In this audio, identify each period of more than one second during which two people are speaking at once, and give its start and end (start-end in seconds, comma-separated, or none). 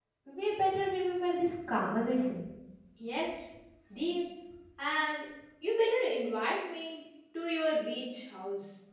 none